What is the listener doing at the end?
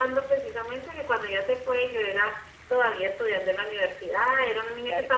listening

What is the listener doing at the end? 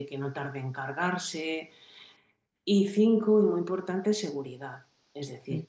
listening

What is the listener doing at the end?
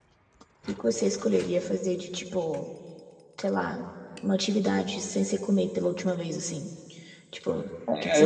taking over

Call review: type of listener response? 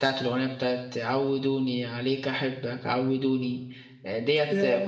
listening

